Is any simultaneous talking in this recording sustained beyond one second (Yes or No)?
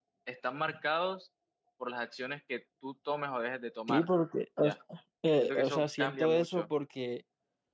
Yes